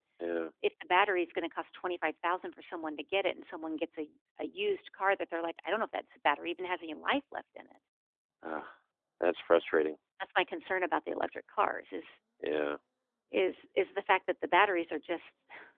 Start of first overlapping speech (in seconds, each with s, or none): none